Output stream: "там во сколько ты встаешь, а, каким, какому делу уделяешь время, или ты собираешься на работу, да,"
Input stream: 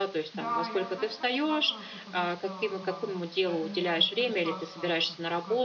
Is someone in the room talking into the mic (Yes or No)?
Yes